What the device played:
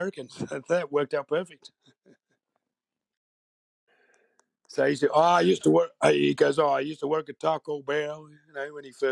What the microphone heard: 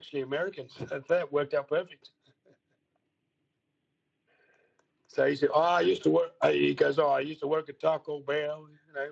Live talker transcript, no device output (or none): none